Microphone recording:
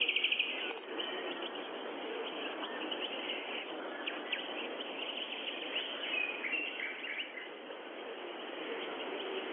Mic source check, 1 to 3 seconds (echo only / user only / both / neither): neither